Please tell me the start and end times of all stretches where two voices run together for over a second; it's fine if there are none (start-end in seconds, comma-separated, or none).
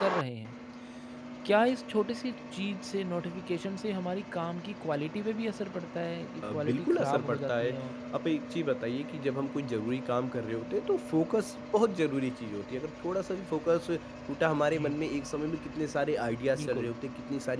6.4-7.8